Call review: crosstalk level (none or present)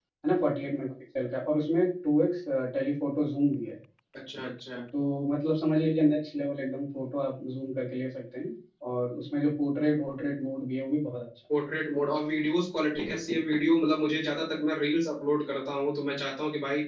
none